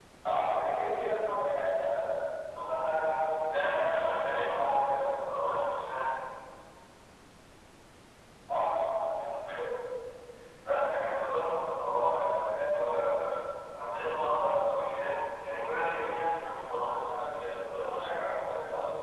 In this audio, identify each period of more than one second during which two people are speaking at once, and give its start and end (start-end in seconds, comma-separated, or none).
3.5-5.1